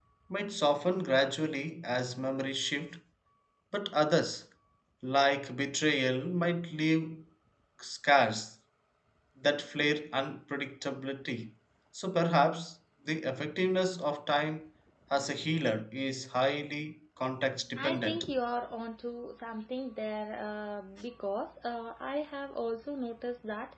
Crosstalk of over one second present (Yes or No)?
No